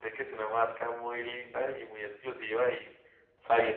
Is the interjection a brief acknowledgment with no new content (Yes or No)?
Yes